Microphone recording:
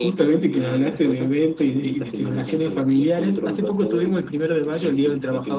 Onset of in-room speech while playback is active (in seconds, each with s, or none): none